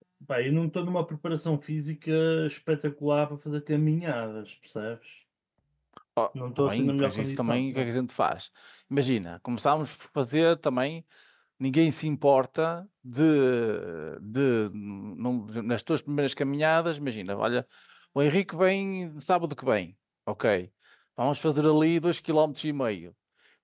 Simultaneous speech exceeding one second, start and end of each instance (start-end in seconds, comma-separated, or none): 6.6-7.9